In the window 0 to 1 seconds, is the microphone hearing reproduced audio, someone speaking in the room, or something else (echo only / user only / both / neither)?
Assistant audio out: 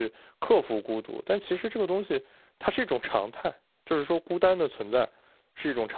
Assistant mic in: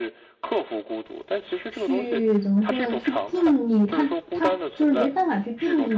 echo only